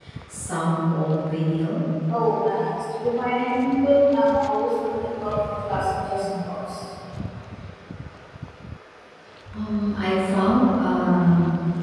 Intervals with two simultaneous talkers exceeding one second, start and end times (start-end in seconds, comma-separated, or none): none